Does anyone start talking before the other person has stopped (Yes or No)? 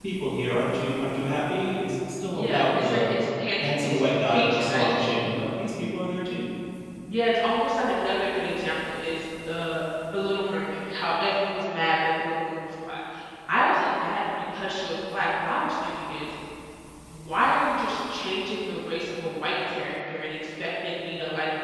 Yes